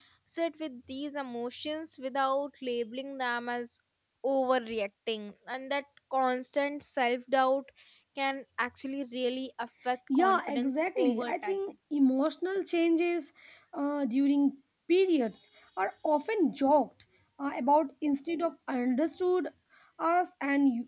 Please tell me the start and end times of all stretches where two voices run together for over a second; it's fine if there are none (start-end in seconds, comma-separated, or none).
10.1-11.6